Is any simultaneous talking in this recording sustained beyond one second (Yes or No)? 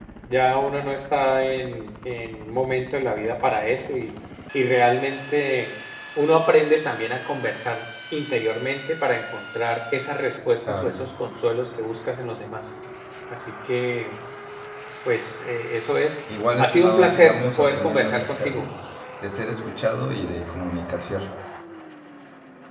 Yes